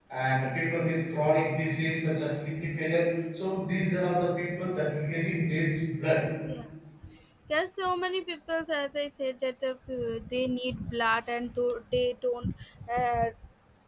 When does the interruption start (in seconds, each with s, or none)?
none